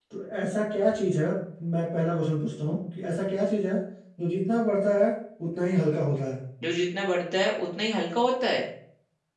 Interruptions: none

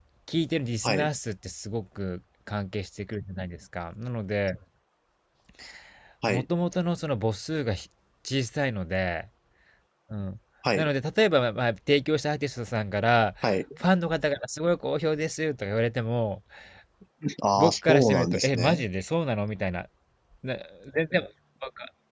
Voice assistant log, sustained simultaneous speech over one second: present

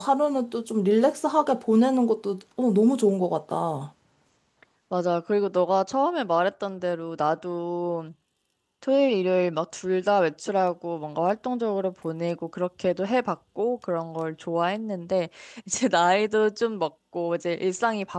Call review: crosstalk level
none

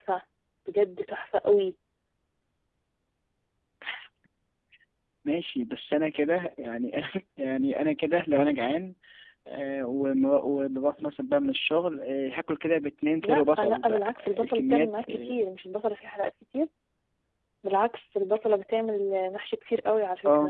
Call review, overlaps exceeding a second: present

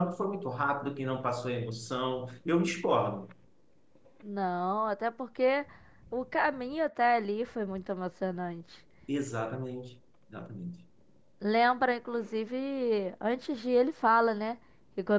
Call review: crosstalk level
none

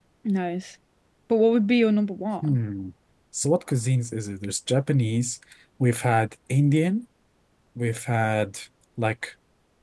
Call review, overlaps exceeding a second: none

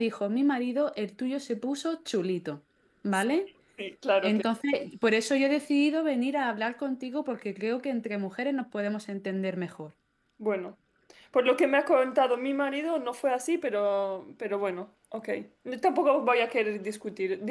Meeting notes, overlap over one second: none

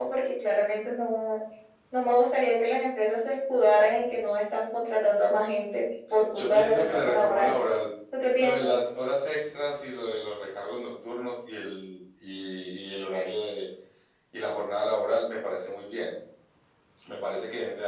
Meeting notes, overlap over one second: present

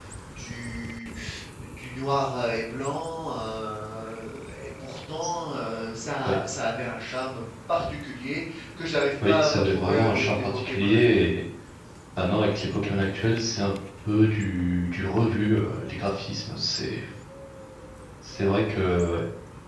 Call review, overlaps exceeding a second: present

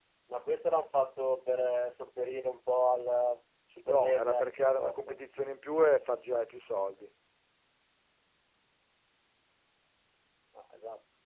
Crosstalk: present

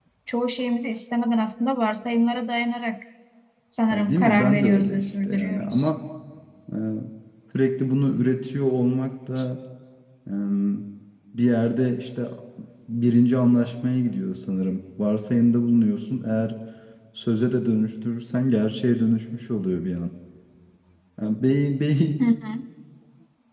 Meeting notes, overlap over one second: present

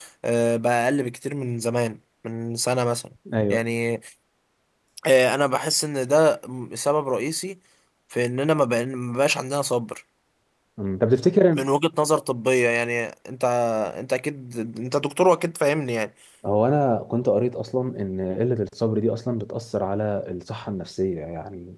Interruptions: none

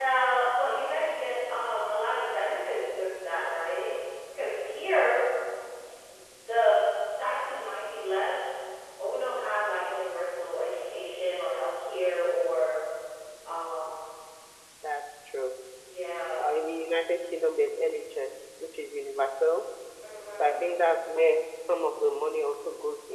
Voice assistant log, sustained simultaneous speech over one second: none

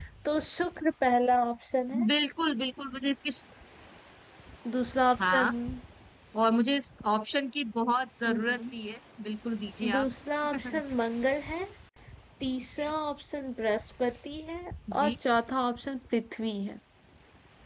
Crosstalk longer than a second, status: none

